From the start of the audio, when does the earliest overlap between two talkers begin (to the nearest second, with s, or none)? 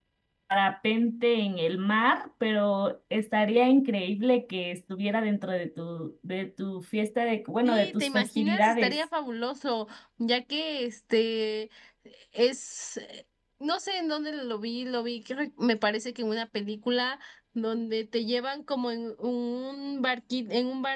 8 s